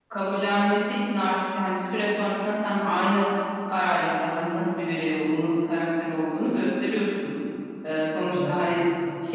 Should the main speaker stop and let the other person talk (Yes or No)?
No